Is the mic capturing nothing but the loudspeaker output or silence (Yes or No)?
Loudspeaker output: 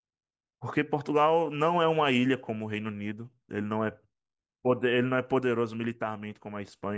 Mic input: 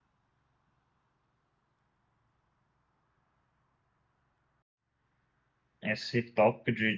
No